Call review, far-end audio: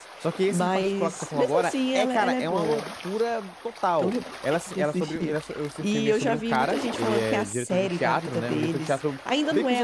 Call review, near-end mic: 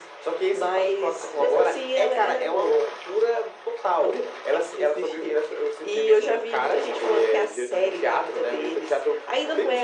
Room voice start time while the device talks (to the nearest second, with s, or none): none